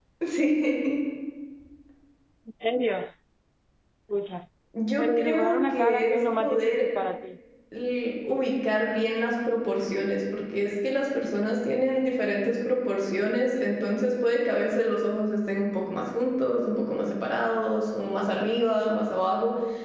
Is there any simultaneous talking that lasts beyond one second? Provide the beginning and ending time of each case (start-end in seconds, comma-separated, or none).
5.0-6.9